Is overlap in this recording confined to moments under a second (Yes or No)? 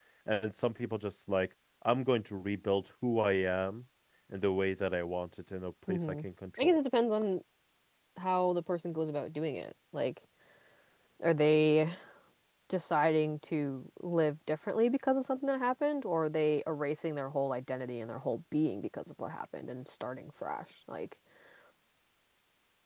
Yes